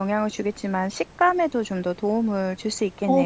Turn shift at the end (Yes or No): Yes